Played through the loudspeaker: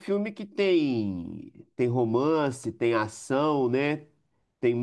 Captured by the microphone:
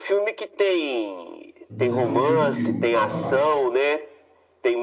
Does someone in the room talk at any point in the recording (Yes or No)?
Yes